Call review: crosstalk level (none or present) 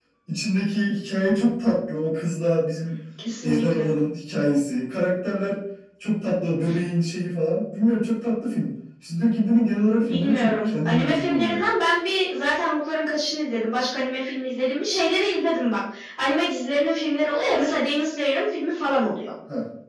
present